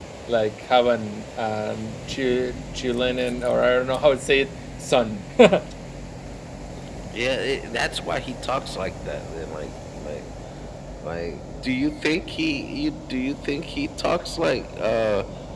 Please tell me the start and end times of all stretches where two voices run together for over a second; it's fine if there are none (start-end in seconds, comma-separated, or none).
none